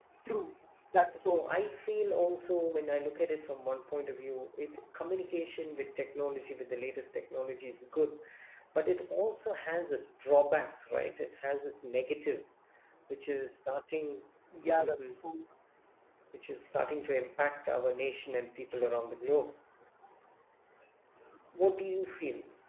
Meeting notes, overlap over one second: none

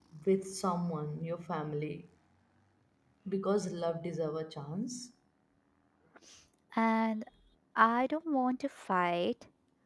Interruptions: none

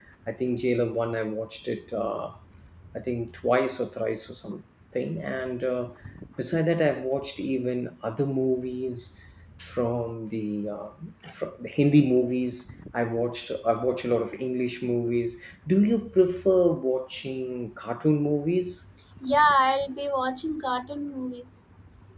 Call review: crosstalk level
none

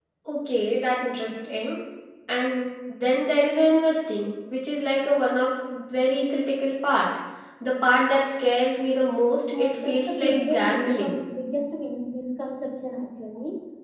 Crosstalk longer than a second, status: present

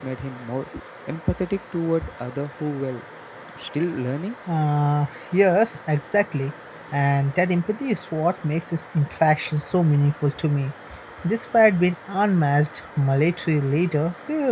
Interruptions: none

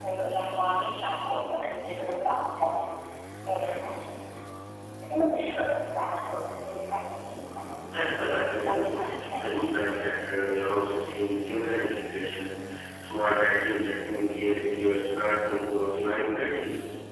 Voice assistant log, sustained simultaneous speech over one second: present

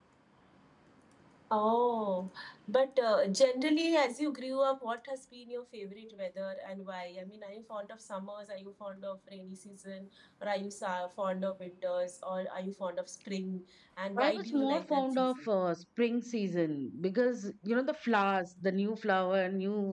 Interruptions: present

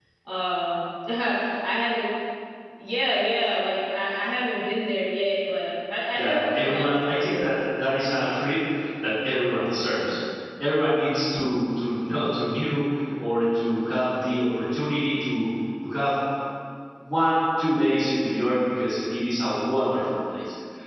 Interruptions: present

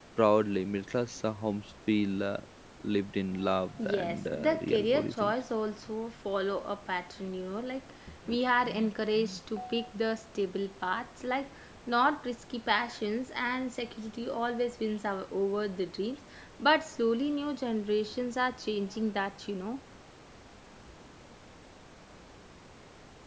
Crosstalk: present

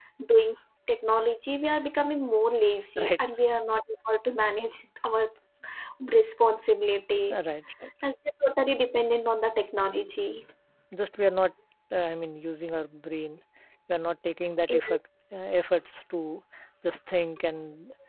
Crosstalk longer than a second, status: none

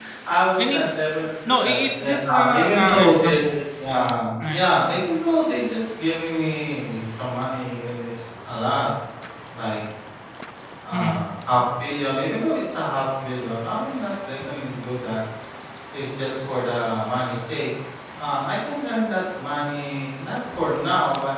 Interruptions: present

